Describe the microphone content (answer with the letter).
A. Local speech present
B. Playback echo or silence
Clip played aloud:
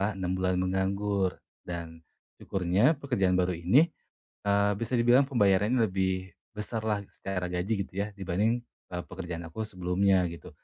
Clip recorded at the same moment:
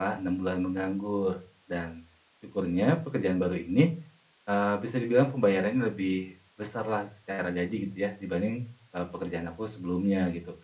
B